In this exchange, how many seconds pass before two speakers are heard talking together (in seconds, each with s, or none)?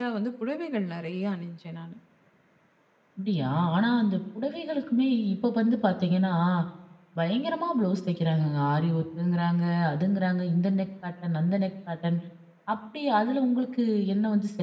none